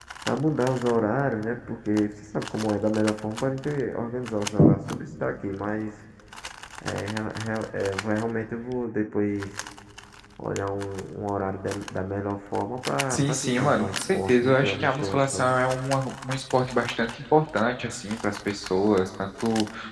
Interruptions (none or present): present